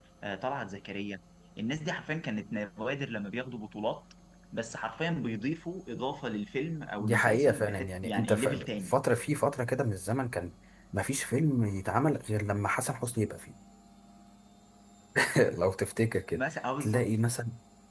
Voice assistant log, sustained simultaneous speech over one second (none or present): present